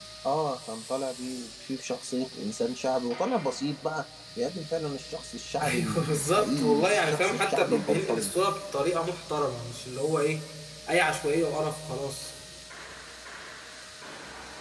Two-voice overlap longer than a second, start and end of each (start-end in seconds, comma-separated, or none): 5.6-8.3